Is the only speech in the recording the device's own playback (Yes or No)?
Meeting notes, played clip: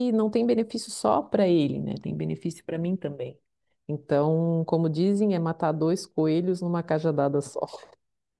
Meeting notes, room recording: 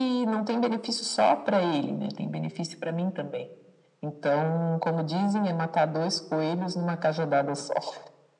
Yes